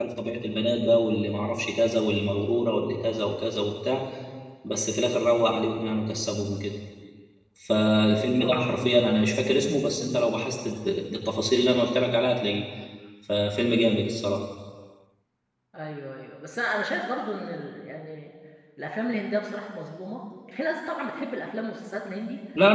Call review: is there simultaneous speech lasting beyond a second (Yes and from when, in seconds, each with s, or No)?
No